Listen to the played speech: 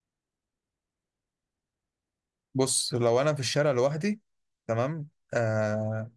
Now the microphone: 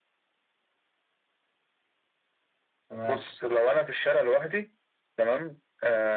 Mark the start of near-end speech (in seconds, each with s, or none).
2.9 s